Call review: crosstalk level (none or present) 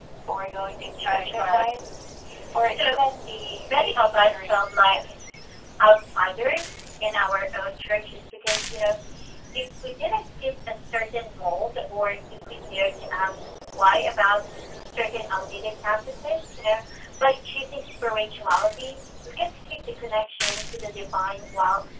present